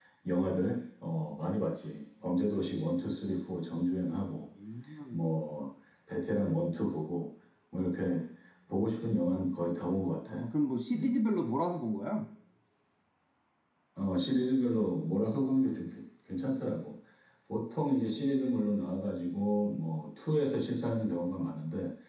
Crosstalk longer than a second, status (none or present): none